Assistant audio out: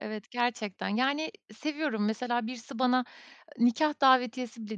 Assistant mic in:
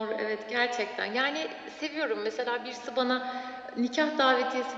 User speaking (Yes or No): No